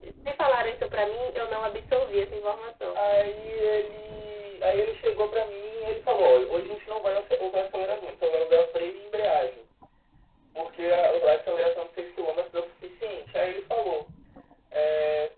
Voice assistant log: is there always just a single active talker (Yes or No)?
Yes